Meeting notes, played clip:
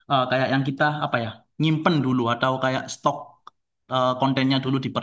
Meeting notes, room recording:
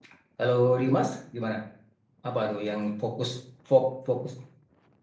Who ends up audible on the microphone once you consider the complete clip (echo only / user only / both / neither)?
user only